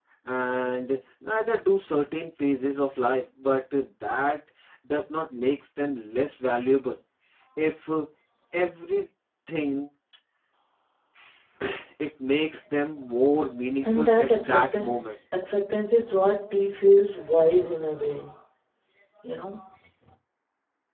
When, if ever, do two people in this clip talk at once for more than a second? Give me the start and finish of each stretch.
13.8-15.1

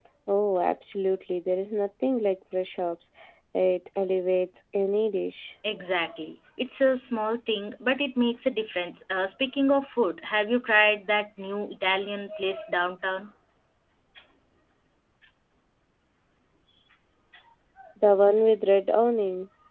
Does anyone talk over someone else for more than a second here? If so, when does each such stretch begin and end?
none

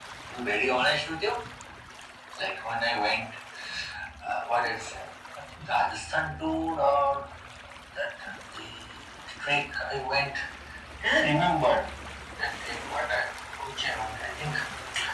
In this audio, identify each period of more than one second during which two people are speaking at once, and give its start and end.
none

